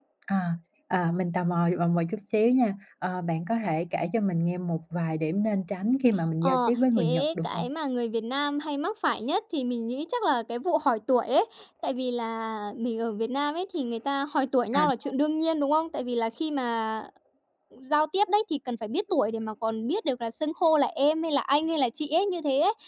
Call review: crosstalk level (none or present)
present